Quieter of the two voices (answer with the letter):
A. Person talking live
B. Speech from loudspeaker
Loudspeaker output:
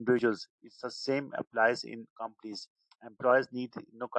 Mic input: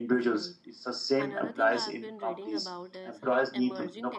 A